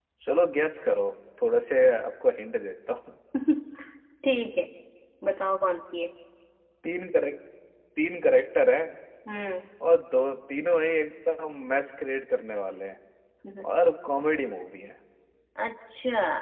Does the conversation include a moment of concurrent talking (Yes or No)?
No